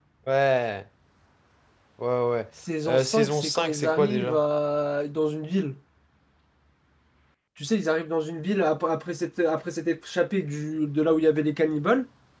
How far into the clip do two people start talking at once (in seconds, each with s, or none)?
2.9 s